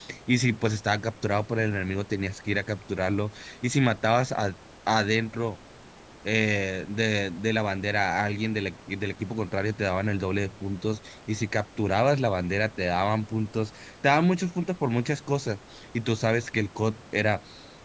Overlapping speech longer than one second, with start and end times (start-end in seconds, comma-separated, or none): none